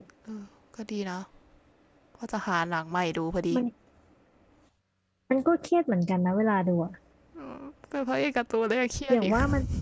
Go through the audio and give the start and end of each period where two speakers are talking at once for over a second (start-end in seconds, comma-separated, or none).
none